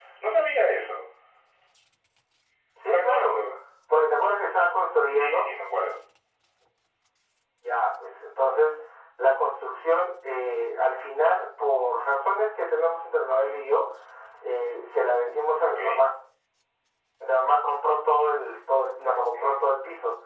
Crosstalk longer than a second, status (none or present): none